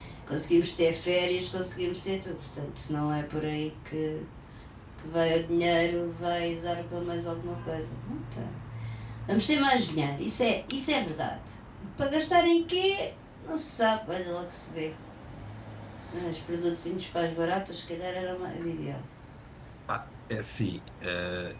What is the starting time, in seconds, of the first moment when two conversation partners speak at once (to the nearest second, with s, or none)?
none